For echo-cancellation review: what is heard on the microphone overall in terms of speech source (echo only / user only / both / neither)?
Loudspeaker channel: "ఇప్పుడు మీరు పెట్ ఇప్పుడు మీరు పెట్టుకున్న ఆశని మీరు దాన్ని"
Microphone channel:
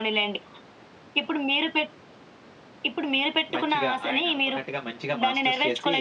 both